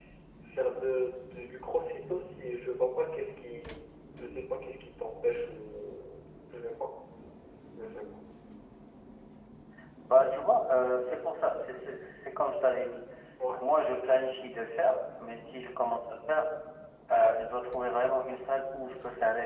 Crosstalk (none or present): none